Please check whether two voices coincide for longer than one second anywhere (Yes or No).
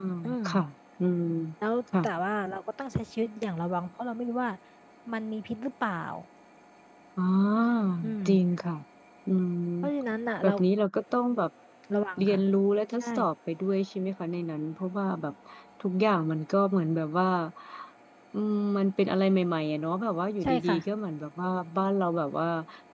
No